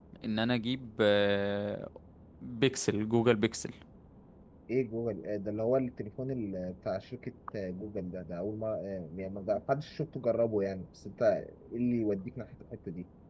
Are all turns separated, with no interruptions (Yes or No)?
Yes